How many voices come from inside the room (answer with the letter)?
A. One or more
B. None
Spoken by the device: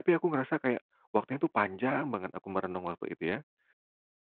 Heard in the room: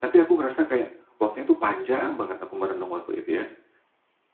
B